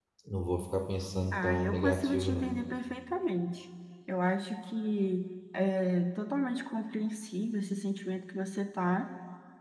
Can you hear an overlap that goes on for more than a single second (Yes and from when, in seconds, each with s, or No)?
Yes, from 1.3 s